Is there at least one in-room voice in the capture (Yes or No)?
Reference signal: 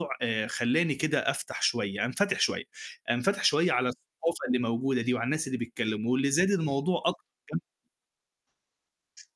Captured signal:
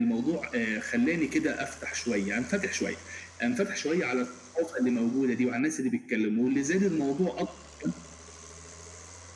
No